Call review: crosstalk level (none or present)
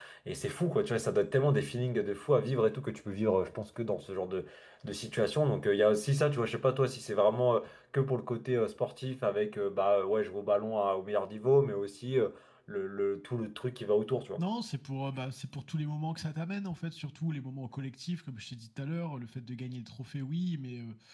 none